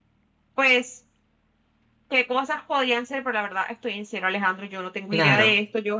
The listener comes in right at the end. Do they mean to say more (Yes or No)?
No